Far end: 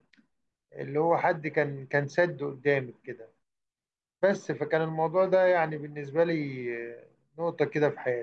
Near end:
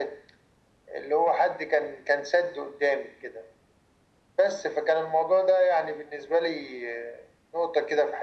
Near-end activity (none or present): none